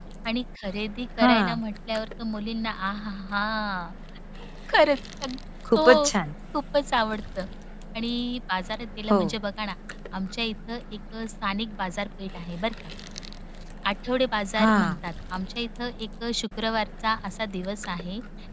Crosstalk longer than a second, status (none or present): none